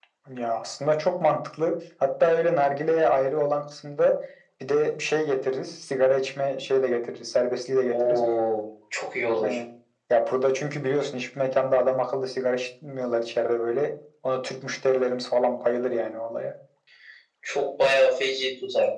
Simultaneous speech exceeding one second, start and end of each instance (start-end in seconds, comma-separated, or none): none